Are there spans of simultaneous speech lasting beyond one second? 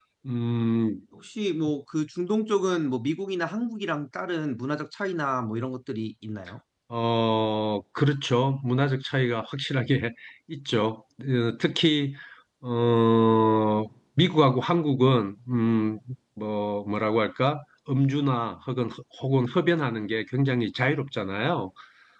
No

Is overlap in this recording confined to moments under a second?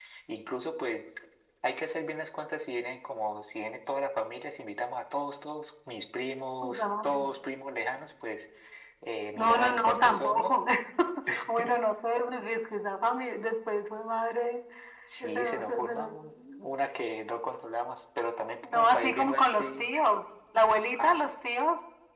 No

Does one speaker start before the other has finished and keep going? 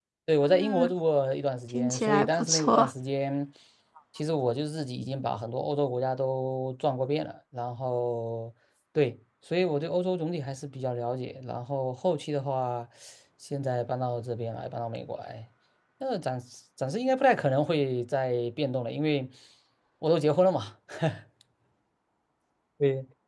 Yes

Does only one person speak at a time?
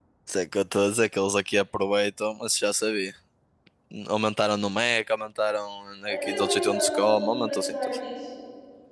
No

